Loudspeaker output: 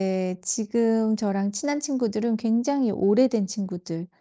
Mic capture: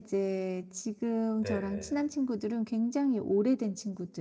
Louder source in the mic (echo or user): echo